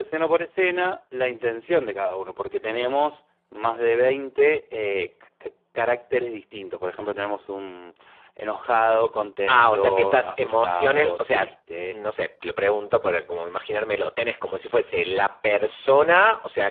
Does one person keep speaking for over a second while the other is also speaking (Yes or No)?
Yes